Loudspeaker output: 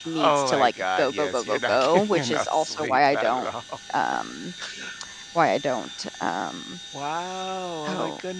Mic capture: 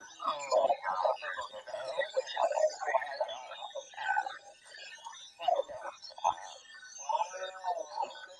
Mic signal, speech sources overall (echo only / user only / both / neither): echo only